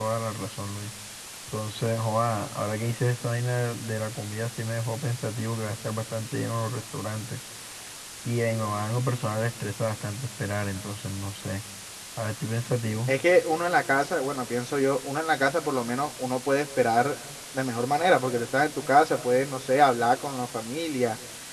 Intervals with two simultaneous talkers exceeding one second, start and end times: none

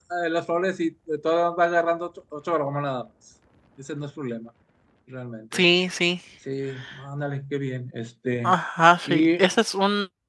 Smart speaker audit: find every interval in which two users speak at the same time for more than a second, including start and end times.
none

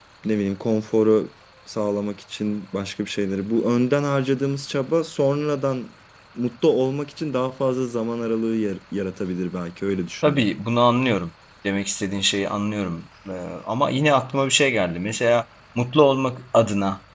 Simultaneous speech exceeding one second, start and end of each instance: none

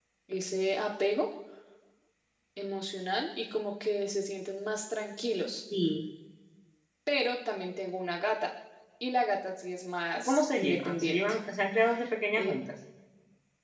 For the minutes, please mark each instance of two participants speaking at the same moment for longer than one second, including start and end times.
10.2-11.4

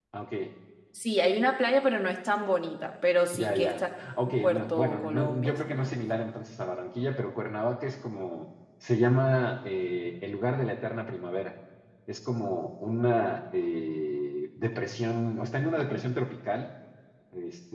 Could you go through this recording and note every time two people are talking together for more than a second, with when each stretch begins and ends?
4.2-6.0

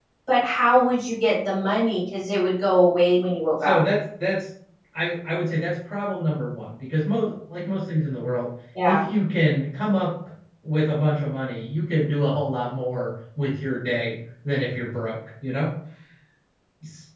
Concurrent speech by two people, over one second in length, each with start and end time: none

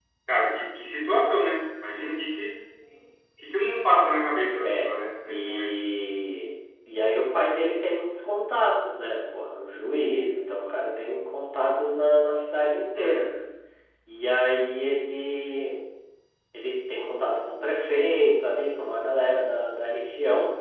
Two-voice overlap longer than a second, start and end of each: none

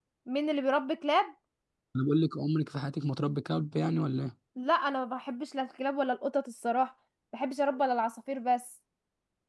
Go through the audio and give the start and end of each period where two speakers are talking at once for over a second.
none

